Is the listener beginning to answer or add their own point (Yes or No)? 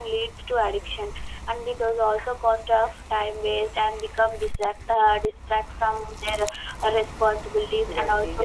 No